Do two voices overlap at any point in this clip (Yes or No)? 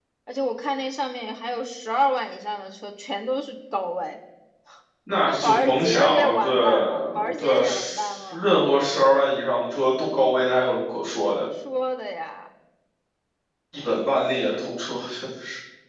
Yes